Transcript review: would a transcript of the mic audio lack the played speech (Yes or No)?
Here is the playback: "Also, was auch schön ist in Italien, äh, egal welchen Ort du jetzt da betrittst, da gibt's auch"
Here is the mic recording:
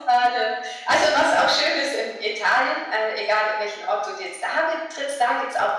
No